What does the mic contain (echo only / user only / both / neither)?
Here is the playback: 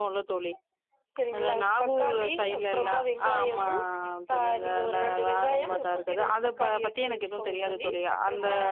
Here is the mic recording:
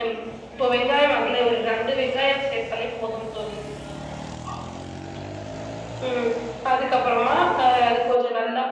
user only